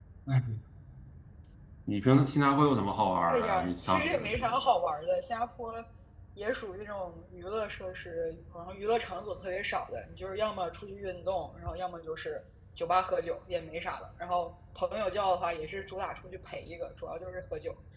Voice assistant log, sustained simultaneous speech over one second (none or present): present